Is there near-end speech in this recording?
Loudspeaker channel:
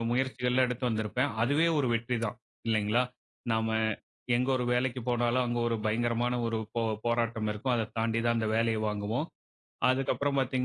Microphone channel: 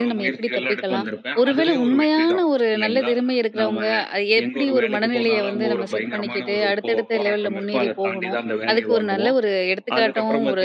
Yes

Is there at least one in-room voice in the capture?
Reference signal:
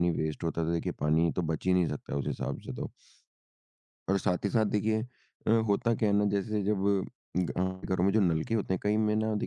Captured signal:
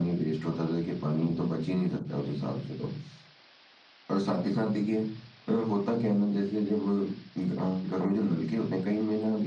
No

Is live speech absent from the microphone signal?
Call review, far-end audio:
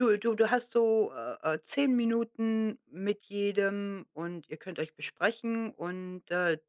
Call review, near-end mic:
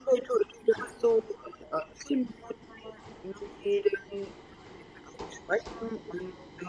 Yes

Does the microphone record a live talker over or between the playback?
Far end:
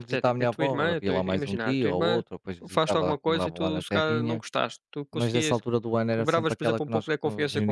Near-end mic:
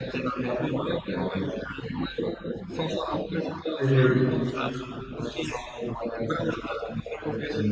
Yes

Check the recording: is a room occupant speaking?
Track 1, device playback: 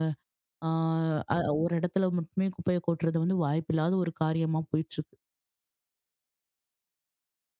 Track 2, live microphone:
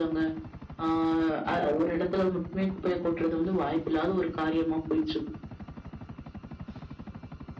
No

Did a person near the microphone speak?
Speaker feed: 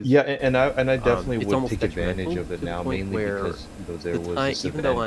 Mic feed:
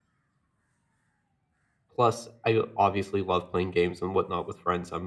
Yes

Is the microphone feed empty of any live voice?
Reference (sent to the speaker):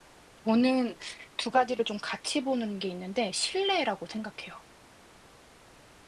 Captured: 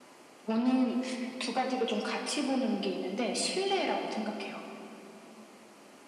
Yes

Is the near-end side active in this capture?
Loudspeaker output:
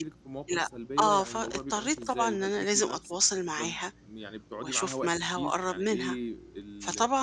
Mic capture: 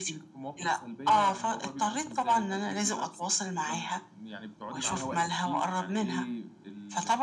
No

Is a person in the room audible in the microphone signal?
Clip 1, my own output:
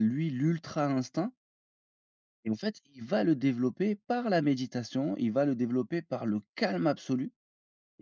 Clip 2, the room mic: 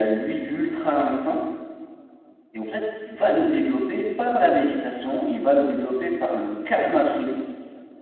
No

